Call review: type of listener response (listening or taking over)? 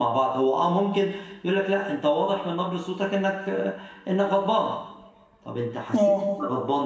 listening